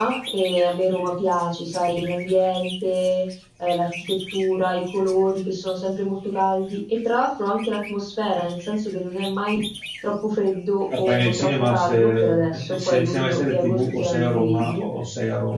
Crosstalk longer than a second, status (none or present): present